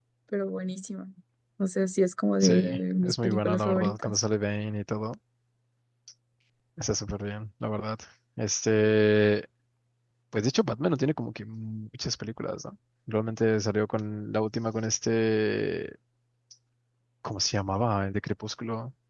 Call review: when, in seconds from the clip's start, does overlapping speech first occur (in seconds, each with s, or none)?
2.4 s